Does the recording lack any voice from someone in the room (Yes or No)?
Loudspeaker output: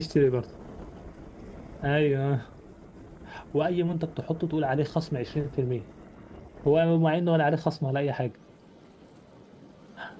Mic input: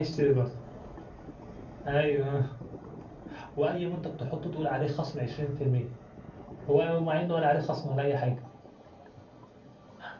Yes